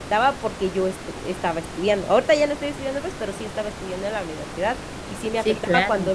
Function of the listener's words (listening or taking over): listening